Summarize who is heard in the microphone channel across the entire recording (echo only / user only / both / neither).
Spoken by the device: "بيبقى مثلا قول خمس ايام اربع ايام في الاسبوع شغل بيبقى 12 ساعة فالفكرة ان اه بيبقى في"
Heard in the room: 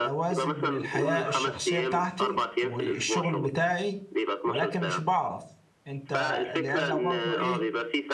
both